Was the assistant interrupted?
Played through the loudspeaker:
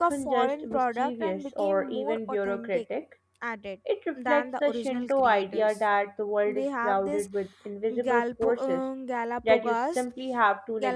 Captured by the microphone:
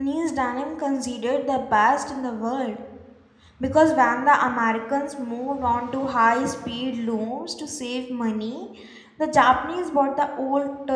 Yes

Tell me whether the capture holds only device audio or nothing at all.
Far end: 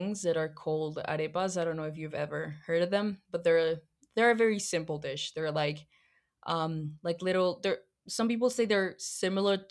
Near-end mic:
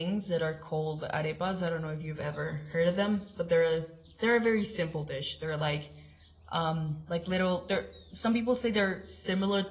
Yes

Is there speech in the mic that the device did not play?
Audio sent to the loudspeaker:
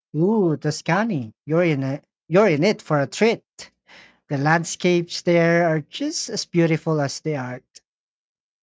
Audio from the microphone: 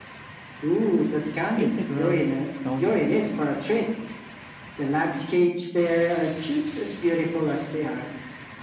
Yes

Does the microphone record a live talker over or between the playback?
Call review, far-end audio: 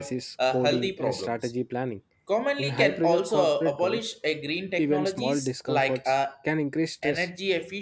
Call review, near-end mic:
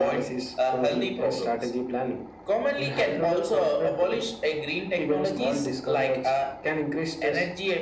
No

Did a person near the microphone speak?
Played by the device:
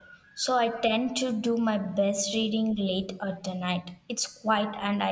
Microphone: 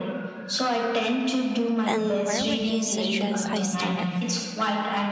Yes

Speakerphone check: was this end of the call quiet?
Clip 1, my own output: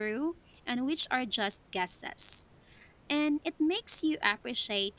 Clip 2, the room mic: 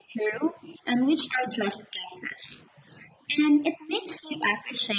Yes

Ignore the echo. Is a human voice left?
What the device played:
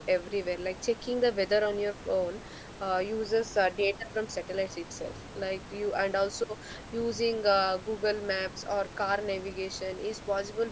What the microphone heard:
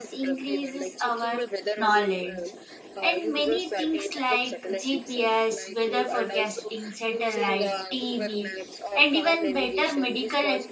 Yes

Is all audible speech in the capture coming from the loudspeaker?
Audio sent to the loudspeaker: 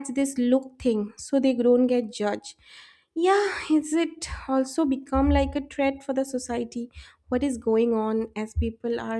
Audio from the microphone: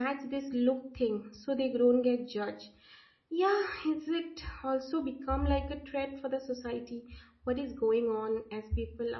Yes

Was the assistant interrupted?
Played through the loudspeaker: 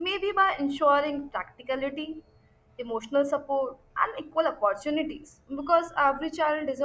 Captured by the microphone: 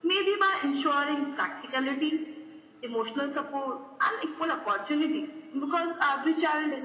No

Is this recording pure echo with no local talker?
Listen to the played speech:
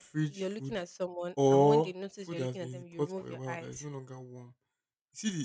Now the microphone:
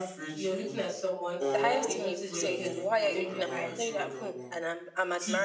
No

